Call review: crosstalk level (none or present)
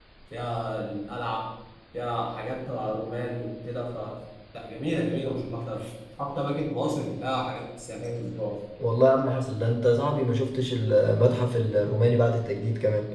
none